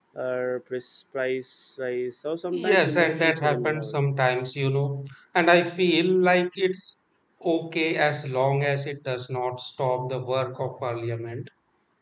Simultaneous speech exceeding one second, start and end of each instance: 2.6-4.0

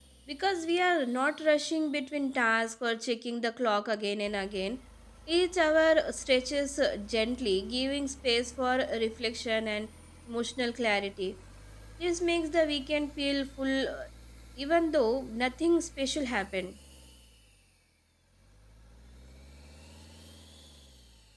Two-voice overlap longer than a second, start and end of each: none

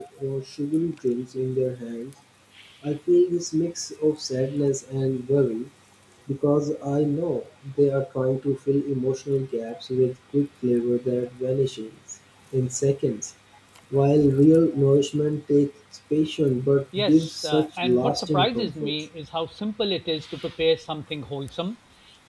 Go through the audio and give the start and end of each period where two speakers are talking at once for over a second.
17.0-18.9

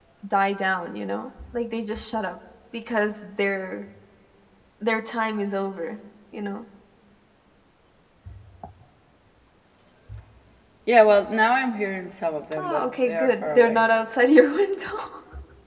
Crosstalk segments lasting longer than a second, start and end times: 12.6-13.8

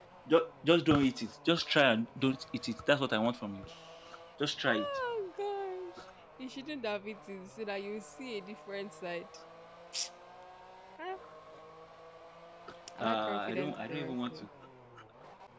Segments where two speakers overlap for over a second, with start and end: 13.0-14.5

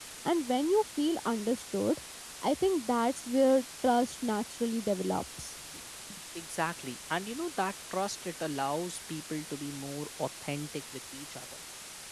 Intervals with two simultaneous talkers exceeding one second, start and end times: none

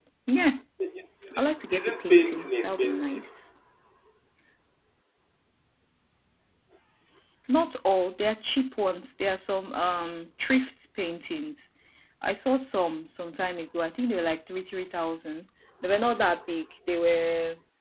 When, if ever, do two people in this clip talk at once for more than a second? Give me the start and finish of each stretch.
1.4-3.2

